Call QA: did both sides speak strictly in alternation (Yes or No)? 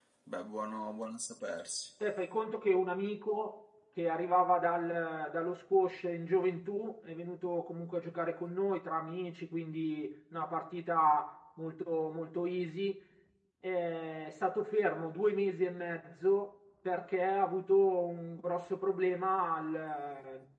Yes